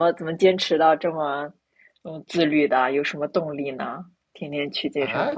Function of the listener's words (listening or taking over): taking over